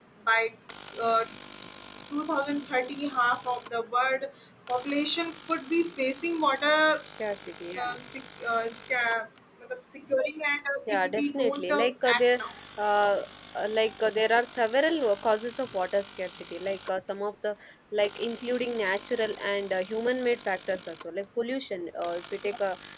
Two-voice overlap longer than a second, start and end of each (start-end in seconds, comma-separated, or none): 10.9-12.4